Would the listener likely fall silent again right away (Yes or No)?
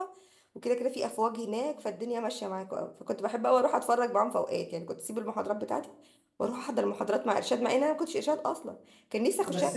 No